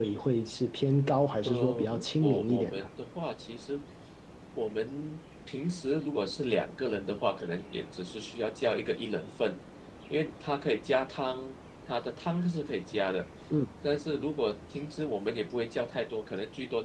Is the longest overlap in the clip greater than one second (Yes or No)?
Yes